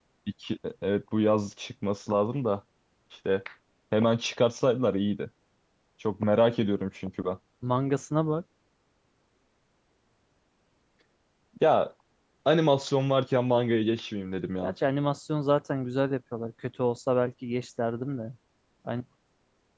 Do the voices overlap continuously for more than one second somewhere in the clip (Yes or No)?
No